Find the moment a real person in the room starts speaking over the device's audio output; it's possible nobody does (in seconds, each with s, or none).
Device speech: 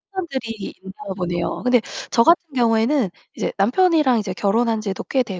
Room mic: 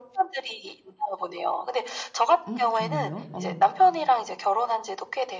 2.5 s